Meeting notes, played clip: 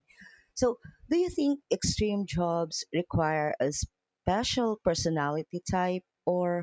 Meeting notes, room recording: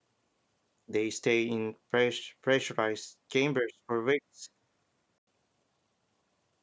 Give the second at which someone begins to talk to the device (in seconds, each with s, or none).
0.9 s